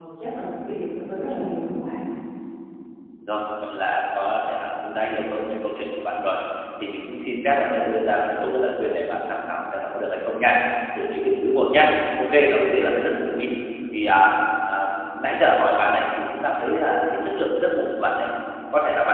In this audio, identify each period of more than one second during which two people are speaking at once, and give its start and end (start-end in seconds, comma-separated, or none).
none